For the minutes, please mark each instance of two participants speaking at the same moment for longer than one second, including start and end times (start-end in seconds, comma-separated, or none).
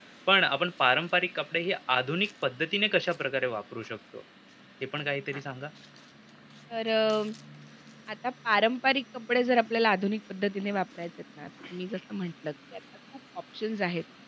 none